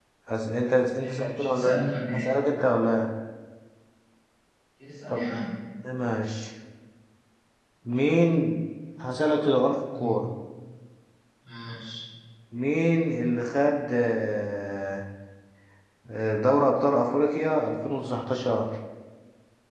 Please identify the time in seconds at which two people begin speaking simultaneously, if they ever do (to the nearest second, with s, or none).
1 s